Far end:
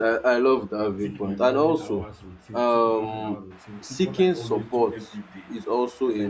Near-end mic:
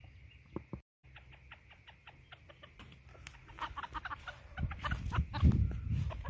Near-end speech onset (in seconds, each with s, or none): none